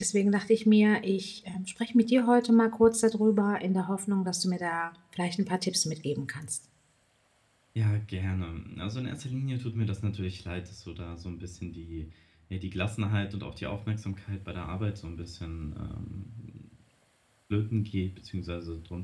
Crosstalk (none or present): none